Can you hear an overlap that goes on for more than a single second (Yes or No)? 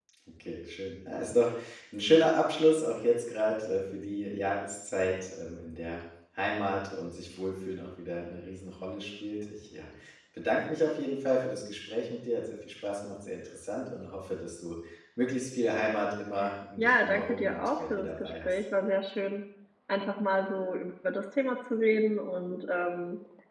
Yes